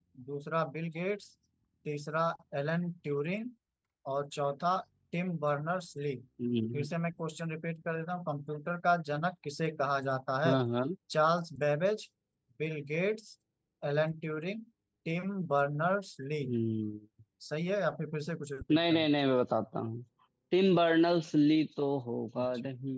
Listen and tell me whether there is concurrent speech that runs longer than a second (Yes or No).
No